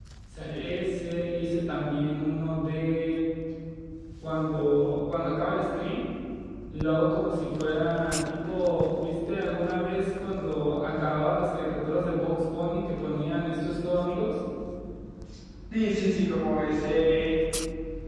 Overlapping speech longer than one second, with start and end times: none

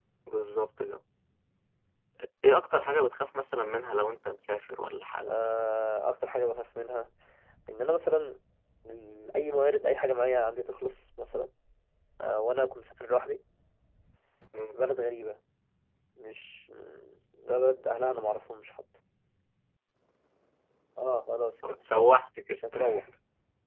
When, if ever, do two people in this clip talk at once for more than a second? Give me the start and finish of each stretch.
none

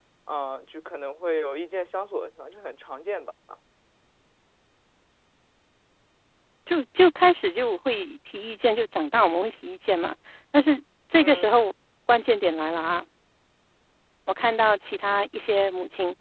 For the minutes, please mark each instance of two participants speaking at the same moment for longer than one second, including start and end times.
none

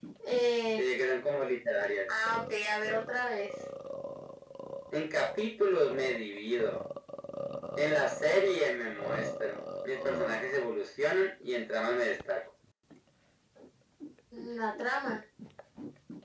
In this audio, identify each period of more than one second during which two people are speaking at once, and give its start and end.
none

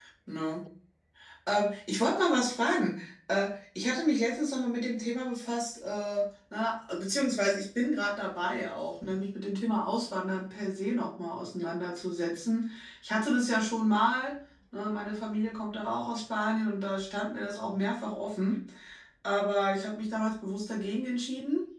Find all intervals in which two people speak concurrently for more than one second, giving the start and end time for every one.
none

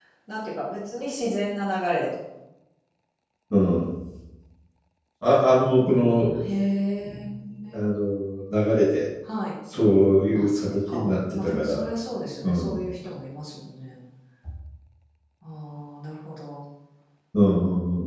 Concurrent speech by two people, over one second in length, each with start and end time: 10.3-11.9

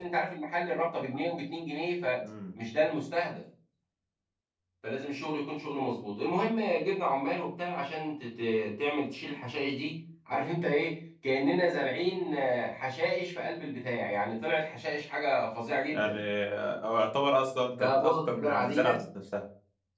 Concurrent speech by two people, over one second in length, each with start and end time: 17.8-19.0

